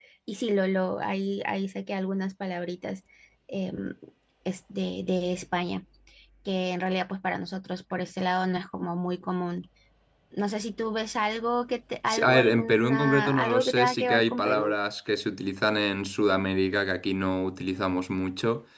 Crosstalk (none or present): present